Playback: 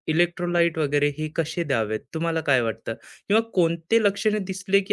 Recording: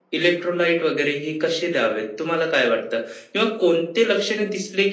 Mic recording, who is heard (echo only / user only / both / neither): echo only